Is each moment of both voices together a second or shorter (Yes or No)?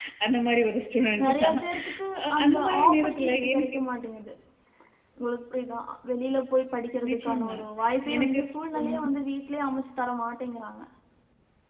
No